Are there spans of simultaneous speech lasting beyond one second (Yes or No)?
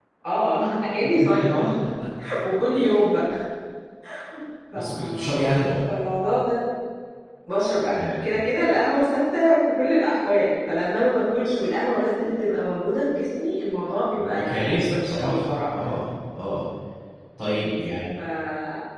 Yes